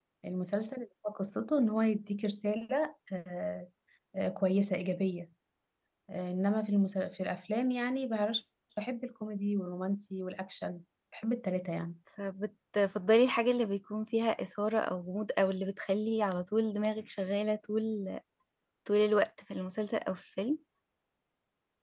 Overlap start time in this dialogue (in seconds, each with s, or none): none